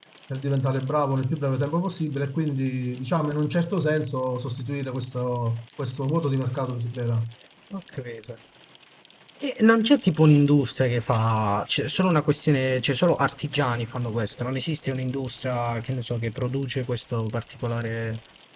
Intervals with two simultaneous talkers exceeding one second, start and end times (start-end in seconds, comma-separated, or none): none